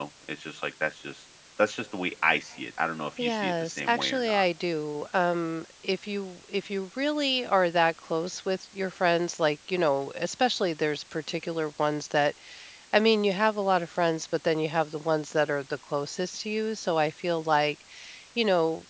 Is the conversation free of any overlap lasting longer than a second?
No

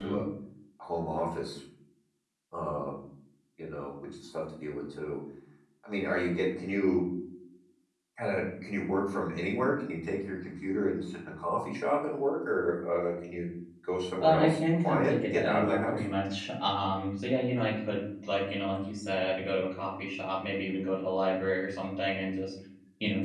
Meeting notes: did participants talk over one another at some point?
Yes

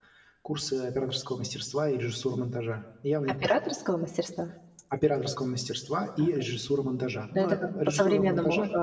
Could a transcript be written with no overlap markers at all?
No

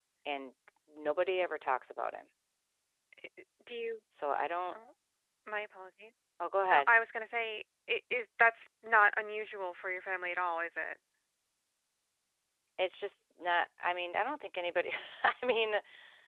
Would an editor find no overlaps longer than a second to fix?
Yes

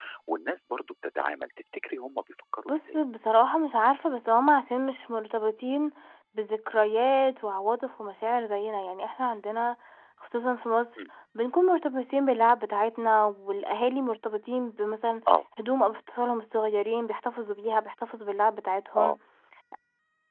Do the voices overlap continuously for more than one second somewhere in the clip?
No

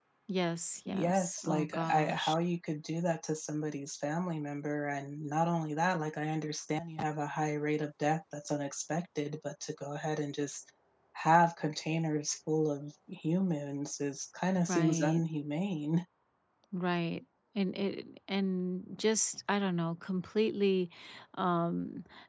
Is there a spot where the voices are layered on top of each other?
Yes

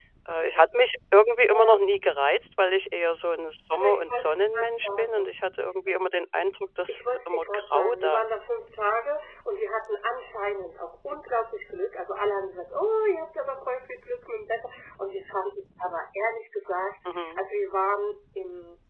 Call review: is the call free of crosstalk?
No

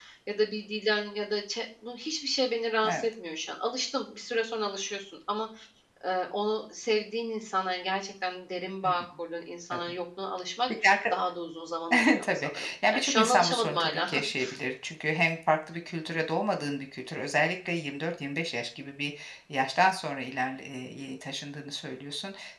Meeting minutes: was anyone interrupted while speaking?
Yes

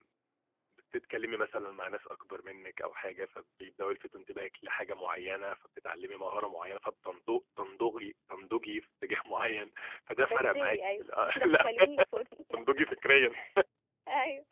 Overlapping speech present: Yes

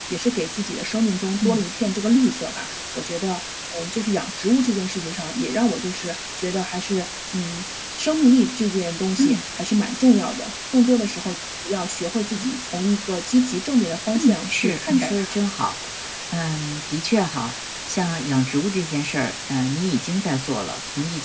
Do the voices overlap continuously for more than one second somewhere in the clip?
Yes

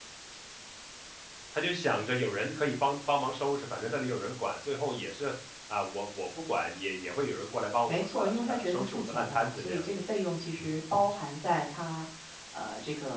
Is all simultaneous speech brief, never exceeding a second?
No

